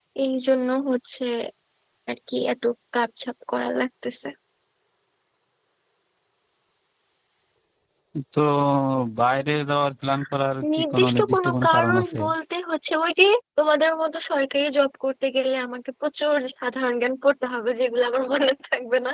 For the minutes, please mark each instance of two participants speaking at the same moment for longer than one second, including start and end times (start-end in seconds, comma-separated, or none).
10.9-12.2